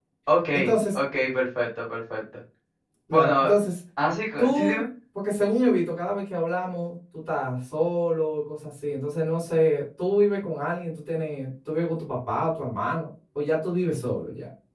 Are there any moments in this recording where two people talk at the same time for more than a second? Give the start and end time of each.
none

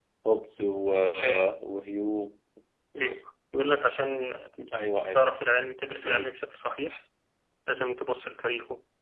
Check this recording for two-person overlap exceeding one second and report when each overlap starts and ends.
none

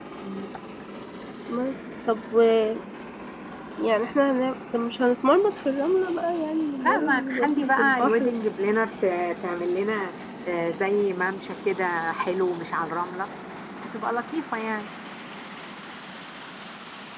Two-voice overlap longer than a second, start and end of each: 6.8-8.3

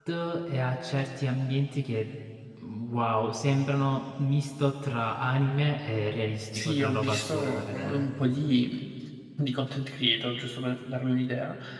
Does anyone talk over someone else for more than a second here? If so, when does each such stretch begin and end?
6.5-8.1

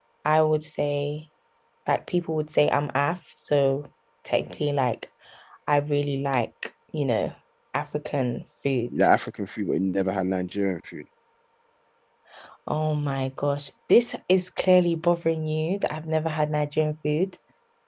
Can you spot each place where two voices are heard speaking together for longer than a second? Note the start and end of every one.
none

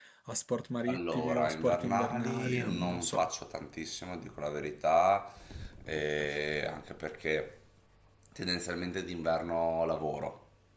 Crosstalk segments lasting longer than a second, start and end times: 0.9-3.3

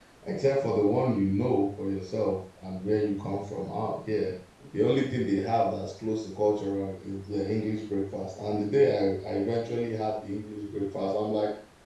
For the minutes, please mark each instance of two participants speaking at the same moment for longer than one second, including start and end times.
none

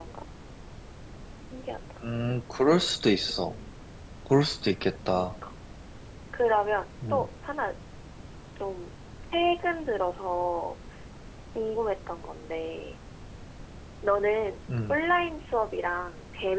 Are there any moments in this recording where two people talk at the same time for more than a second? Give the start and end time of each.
none

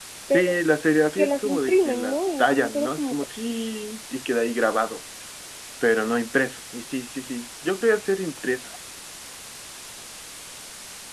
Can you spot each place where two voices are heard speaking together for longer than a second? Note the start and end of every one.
1.2-3.1

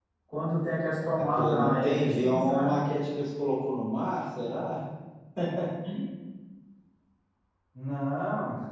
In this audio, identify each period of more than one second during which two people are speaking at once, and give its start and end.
1.4-2.7

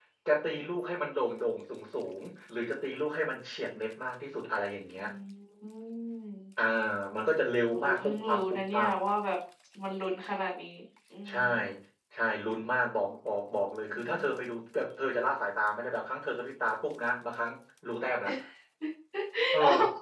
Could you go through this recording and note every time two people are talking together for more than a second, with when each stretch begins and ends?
7.7-8.9

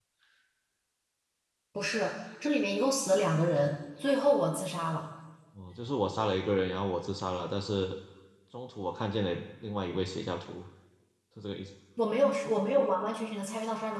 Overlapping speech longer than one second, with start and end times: none

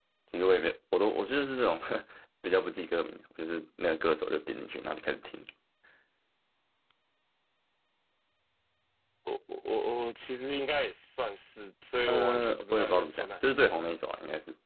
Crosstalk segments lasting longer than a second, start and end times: 12.1-13.8

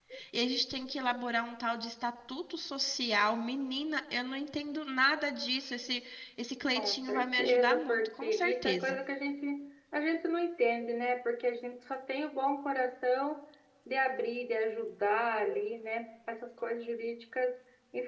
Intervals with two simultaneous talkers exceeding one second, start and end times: 6.8-9.0

